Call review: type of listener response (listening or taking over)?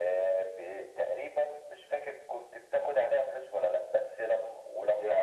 listening